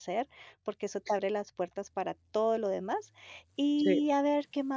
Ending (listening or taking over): listening